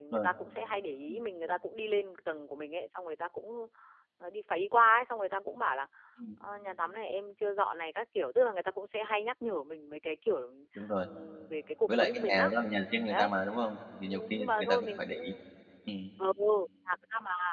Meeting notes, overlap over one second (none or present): present